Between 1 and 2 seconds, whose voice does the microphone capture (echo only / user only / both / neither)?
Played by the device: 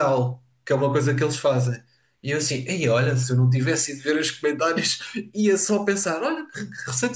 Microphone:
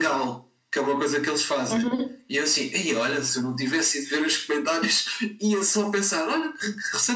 both